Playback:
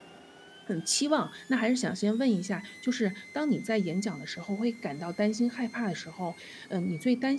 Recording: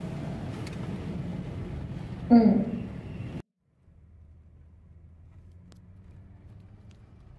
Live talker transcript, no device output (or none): 嗯，